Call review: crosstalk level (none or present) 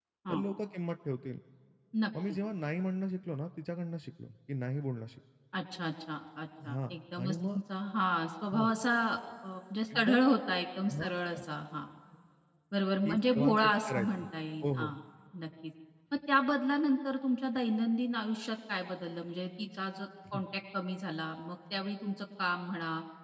present